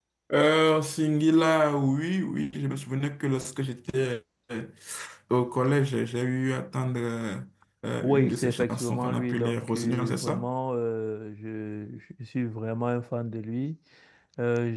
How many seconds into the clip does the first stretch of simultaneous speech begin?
8.0 s

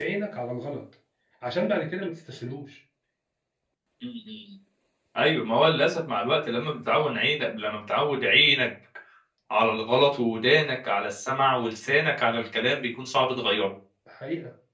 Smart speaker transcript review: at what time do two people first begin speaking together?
none

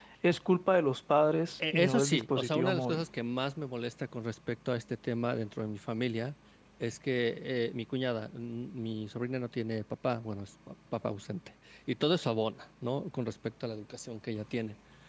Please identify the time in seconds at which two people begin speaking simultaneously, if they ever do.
1.6 s

